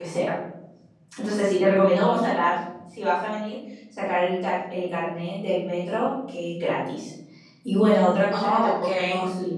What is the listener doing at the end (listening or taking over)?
listening